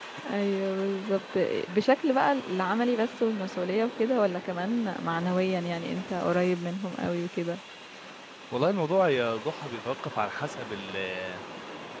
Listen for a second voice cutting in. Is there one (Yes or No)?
No